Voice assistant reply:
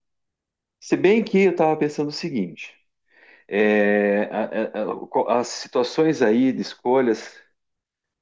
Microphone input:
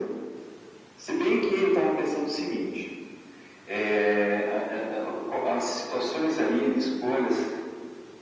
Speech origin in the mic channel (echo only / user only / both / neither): echo only